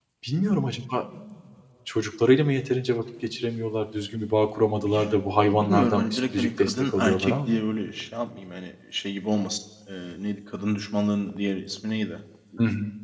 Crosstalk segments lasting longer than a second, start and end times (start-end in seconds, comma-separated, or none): 4.8-7.6